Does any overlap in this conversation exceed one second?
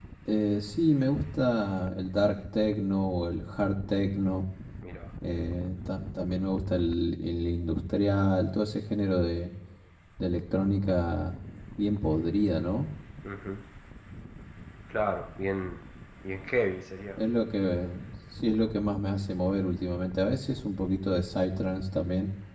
No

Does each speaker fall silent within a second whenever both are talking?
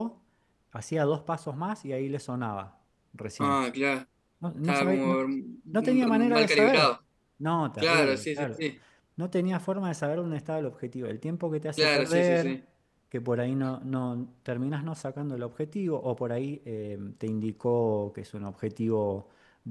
No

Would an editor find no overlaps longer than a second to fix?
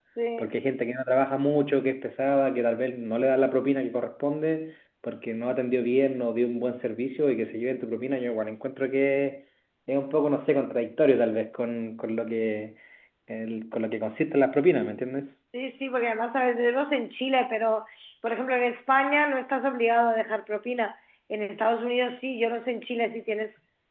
Yes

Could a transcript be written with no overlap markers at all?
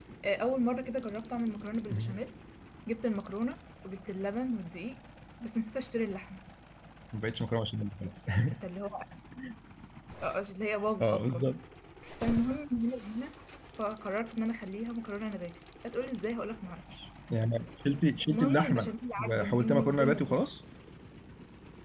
No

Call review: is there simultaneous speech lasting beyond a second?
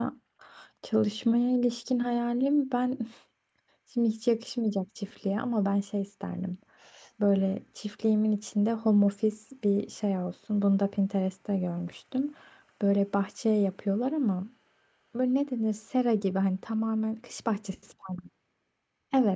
No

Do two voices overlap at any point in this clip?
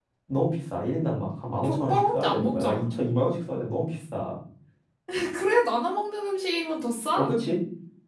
Yes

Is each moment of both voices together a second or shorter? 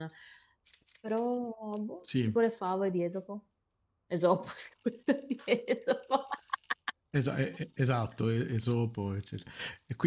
Yes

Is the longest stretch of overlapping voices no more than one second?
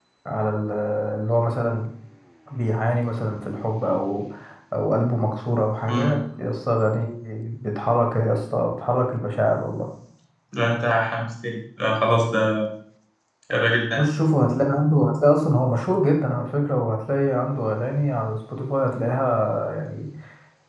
Yes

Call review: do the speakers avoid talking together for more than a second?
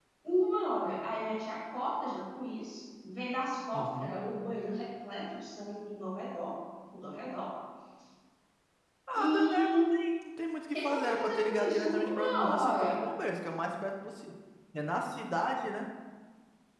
No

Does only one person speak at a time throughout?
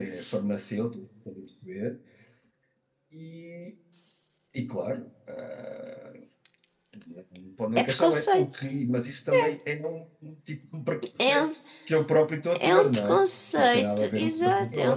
No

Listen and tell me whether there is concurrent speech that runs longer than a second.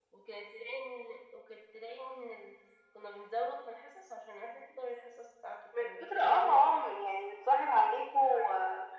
Yes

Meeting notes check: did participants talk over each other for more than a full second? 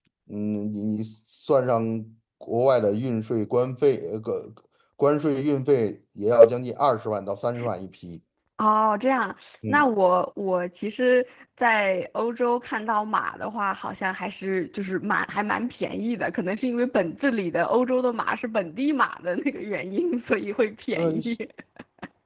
No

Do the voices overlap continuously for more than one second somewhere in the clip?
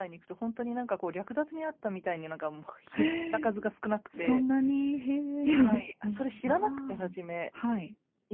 Yes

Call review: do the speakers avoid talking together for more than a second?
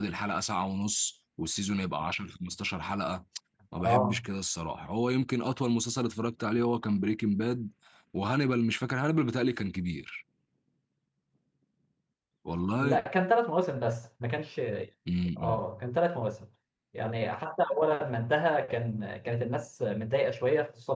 Yes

